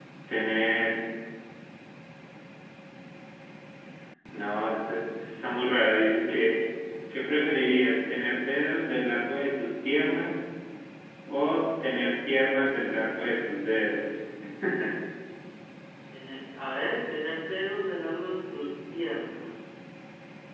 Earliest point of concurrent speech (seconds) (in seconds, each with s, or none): none